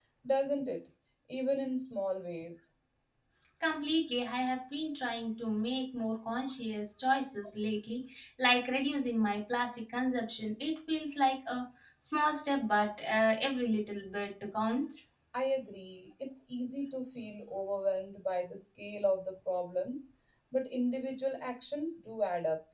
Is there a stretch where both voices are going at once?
No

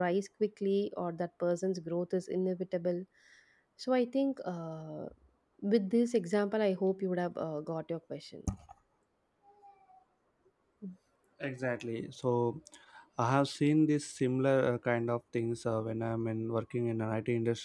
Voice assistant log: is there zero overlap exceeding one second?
Yes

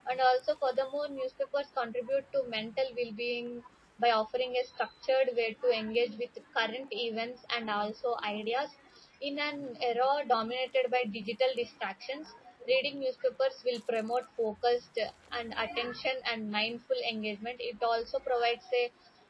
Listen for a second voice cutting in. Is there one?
No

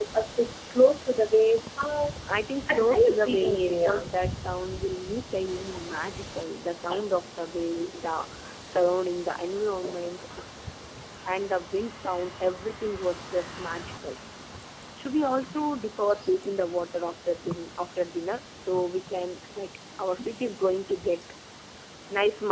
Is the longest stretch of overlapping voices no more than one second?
No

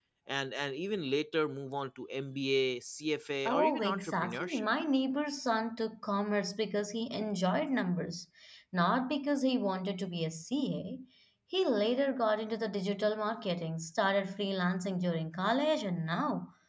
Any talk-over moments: Yes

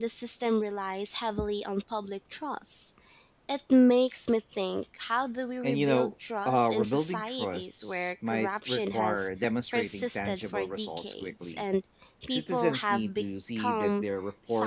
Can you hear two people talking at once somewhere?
Yes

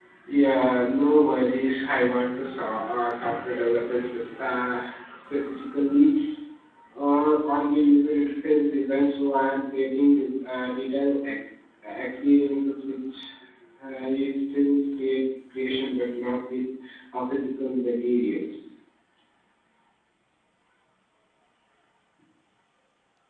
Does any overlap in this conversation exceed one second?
No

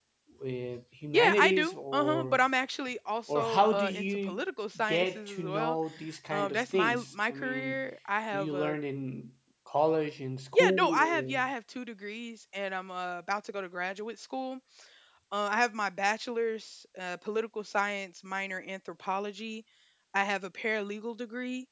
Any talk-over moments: Yes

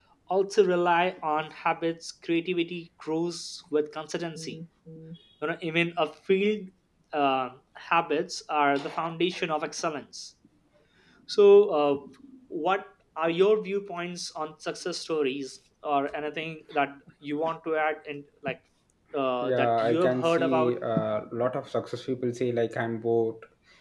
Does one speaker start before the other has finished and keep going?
Yes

